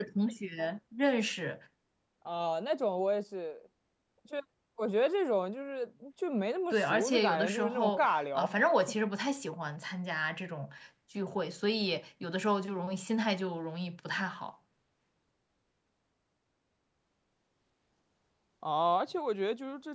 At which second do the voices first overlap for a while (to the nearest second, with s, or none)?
7 s